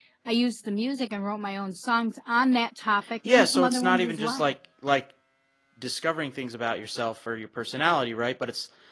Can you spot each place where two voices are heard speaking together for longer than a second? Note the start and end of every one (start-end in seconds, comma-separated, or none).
3.2-4.5